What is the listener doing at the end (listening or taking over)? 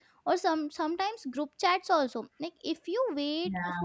listening